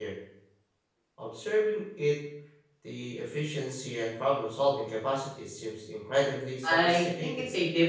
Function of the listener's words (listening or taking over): taking over